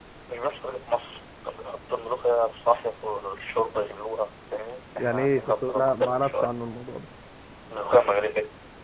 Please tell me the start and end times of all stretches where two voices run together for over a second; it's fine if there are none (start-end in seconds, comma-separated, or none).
5.0-6.5